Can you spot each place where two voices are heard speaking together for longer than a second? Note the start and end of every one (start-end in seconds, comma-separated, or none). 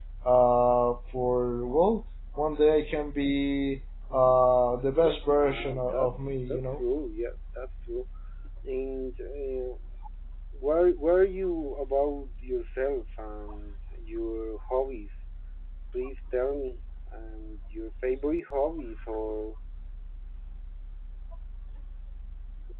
4.9-6.8